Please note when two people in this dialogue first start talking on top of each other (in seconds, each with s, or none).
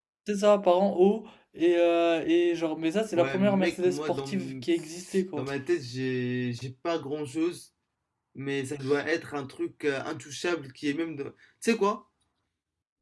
3.2 s